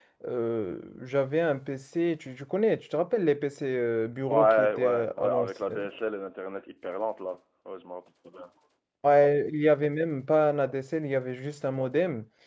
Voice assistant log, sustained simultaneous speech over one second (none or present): present